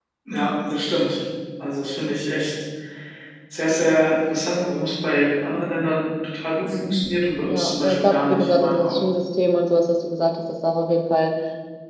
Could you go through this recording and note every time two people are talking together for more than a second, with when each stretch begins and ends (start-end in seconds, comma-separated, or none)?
7.5-9.0